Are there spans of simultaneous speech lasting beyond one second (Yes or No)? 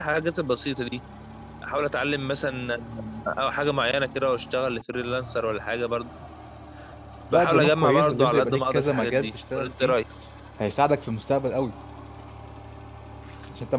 Yes